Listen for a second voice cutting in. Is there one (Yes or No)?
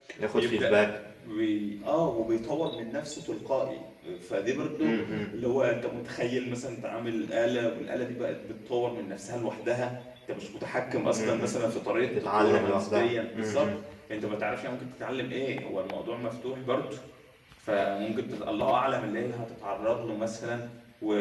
Yes